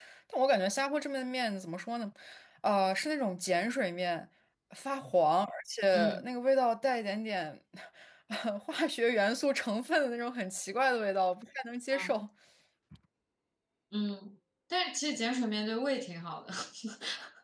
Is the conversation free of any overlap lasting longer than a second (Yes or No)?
Yes